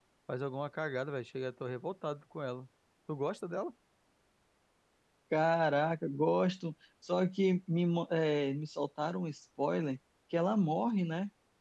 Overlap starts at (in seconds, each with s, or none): none